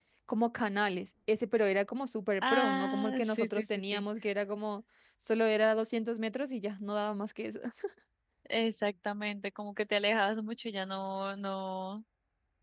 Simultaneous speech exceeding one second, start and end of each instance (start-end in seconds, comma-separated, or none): 2.4-4.0